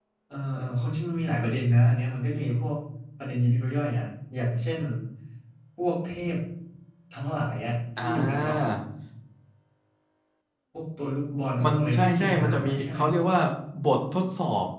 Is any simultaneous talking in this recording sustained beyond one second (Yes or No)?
Yes